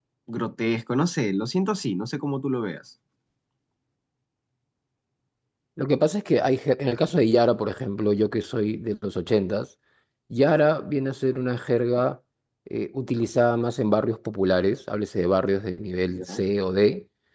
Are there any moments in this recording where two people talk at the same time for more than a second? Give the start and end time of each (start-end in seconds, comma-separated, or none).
none